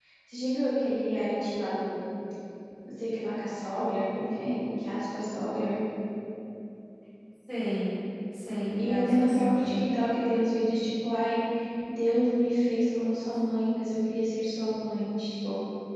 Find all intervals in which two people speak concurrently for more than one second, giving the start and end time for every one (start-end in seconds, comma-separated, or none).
8.8-10.0